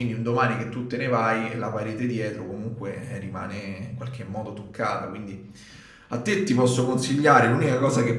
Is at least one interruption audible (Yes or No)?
No